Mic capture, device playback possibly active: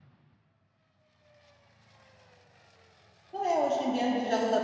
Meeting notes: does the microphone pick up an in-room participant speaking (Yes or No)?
Yes